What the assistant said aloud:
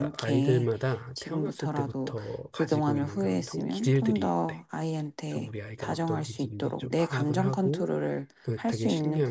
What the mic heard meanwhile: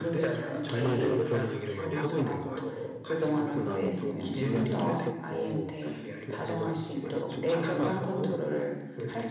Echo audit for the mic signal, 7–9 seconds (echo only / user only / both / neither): both